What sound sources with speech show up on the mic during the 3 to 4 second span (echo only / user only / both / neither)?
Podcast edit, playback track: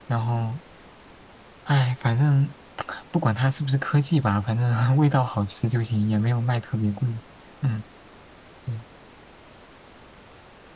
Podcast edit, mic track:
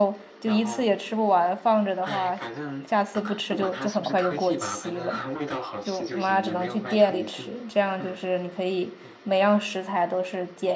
both